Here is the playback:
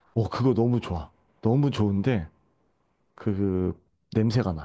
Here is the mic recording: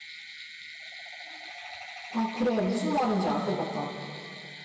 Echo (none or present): none